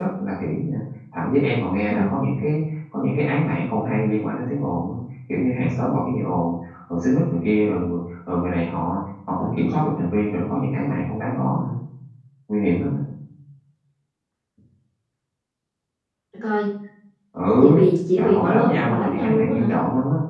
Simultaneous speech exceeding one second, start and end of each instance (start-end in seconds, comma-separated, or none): 18.2-19.7